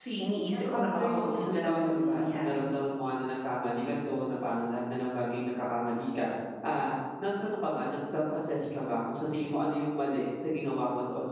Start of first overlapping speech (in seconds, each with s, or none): 0.5 s